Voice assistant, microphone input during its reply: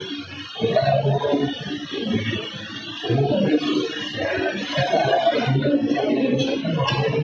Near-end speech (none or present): none